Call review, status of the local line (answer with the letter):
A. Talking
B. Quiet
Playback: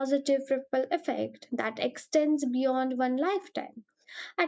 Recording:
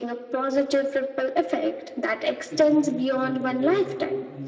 A